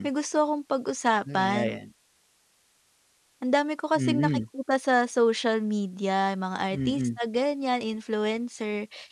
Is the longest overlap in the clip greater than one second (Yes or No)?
No